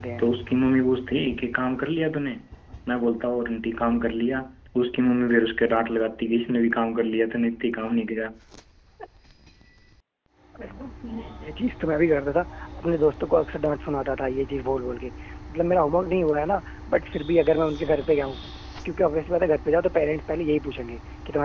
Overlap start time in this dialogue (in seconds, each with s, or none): none